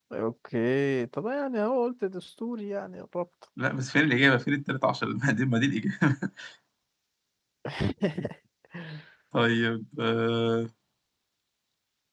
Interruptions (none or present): none